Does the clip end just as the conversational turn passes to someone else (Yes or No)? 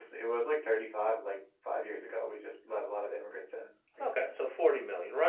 Yes